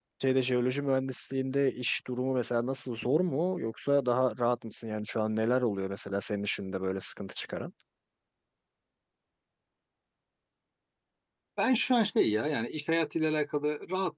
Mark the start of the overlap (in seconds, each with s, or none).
none